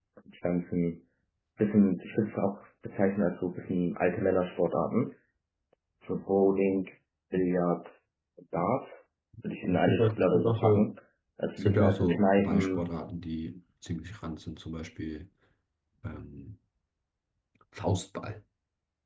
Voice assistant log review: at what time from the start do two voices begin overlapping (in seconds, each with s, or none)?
9.7 s